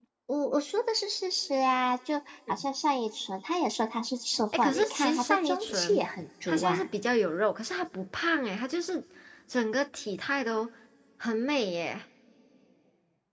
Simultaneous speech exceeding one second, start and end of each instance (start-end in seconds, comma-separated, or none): 4.6-6.0